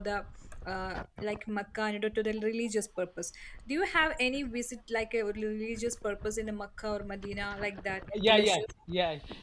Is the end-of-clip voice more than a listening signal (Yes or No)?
Yes